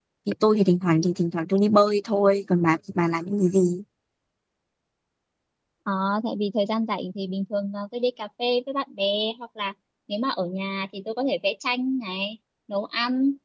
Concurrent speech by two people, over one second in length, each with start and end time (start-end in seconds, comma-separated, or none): none